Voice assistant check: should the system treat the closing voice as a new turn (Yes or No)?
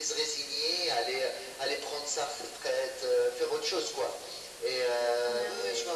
No